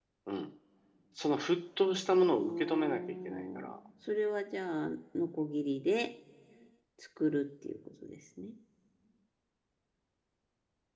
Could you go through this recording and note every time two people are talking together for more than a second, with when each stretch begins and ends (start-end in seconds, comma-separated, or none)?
2.3-3.8